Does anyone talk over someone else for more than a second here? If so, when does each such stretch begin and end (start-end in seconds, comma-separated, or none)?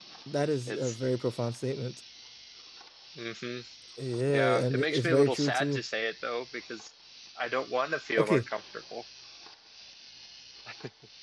4.3-5.8